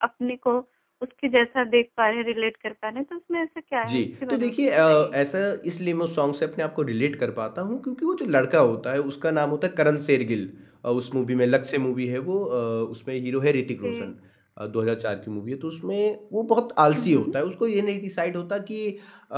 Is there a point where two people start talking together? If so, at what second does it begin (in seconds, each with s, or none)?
3.9 s